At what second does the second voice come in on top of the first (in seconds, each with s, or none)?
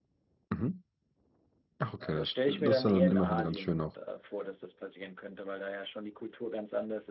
2.0 s